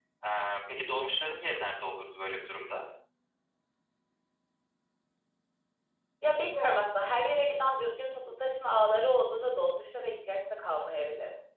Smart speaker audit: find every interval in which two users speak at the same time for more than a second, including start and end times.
none

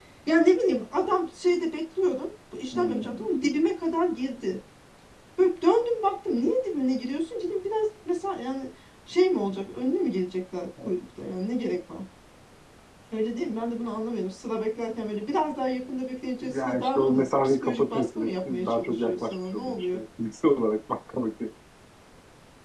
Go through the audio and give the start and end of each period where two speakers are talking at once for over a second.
16.4-20.0

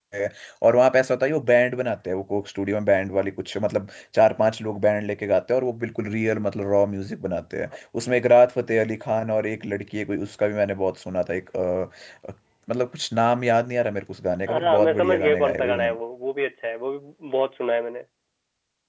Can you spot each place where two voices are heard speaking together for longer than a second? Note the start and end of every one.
14.5-15.9

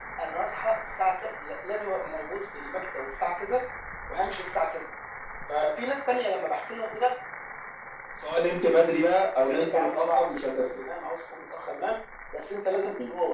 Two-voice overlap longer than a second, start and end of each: 9.3-10.7

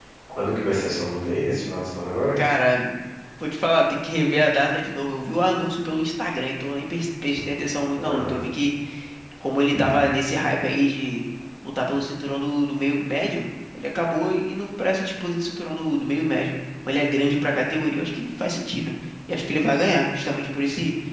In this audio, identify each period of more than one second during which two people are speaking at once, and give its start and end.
none

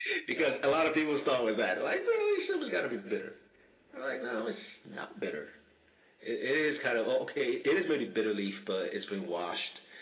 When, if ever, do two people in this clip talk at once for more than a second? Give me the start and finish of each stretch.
none

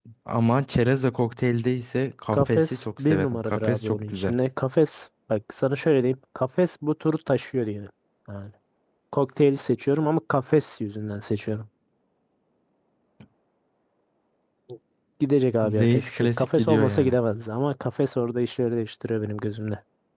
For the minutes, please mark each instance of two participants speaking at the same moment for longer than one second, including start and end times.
2.3-4.3, 15.6-17.2

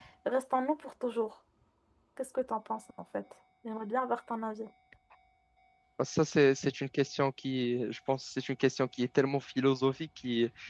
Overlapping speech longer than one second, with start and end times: none

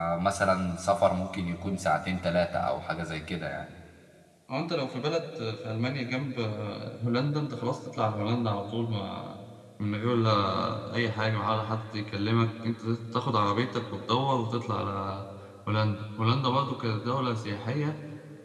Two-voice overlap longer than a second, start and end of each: none

